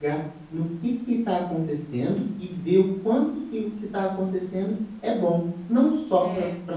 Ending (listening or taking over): listening